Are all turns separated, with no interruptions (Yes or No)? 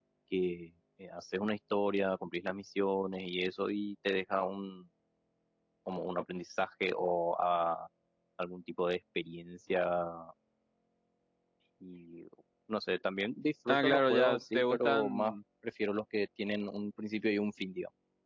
No